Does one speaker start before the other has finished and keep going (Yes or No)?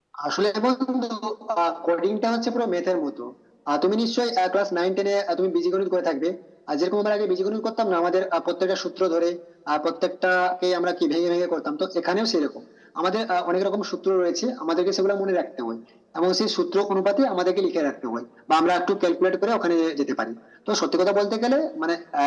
No